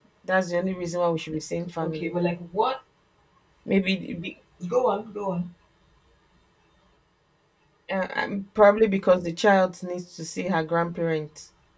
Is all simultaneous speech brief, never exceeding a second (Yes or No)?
Yes